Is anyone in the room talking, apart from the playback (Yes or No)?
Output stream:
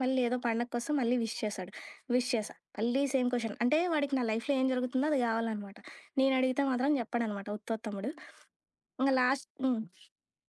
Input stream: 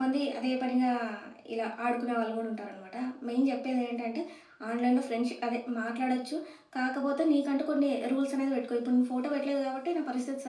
Yes